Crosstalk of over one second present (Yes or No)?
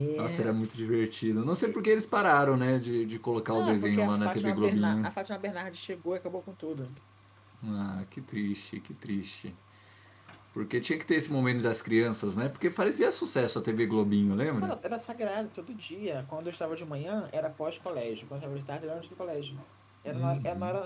Yes